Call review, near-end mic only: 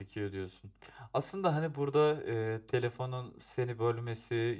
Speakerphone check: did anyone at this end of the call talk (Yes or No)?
Yes